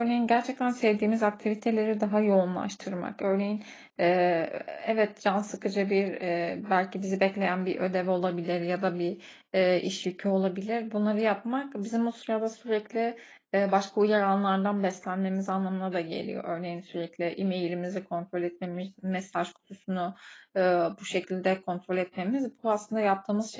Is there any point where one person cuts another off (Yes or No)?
No